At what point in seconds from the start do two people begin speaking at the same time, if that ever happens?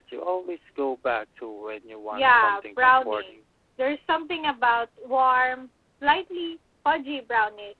2 s

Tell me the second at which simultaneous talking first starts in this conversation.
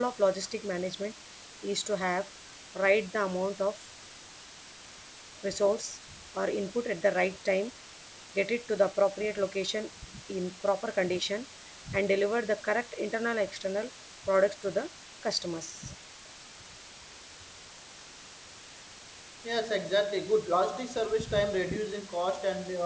none

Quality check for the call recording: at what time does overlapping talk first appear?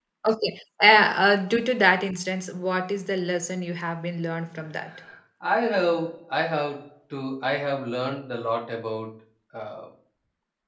none

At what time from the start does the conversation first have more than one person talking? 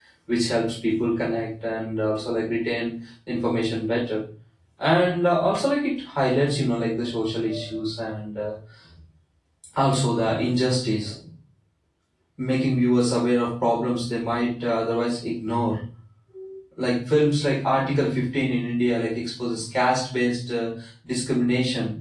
none

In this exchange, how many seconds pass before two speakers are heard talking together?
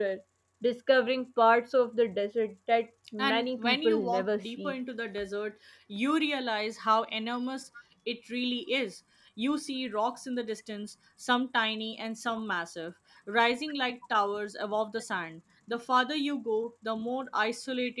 3 s

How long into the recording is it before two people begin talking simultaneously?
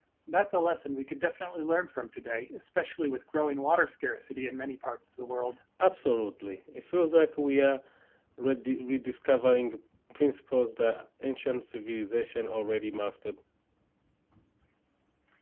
none

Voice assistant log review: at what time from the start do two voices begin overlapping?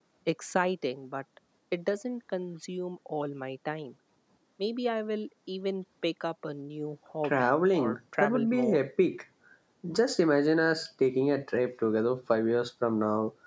7 s

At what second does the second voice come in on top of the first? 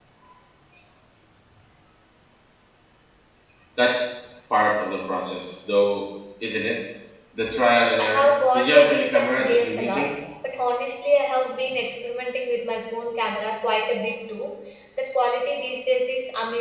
8 s

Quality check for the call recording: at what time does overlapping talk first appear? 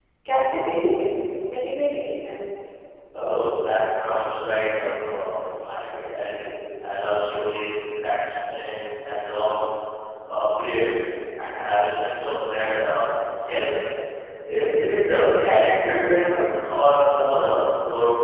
none

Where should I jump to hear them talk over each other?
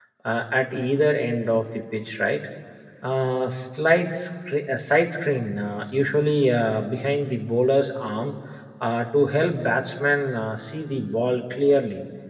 none

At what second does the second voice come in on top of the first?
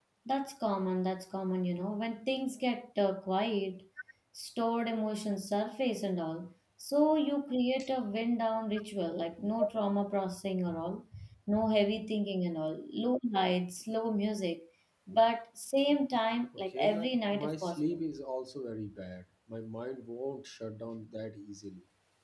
17 s

